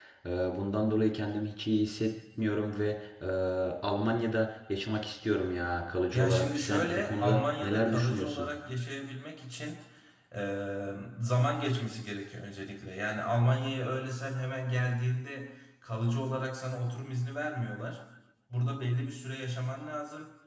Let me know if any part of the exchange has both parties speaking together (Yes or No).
Yes